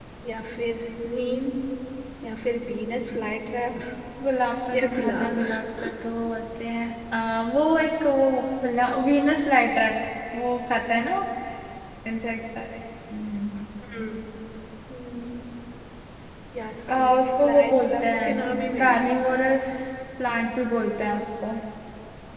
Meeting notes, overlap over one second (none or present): present